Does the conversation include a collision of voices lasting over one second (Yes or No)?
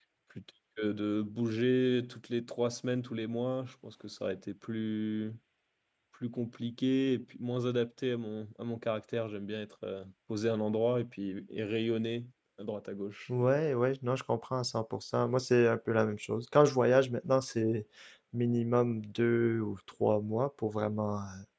No